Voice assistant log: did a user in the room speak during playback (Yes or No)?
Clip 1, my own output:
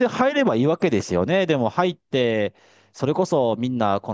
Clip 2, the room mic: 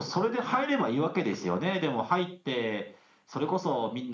No